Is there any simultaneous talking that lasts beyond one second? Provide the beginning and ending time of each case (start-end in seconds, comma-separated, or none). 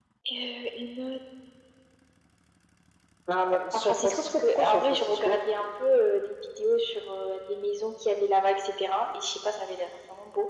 3.7-5.4